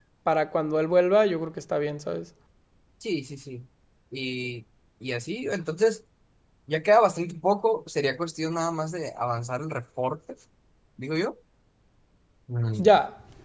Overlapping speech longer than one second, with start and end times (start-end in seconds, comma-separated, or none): none